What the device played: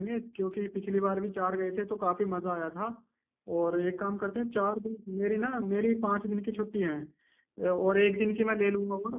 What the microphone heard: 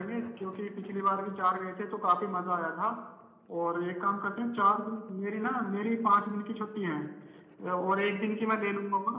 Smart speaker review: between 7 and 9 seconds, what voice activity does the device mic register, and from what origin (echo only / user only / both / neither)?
echo only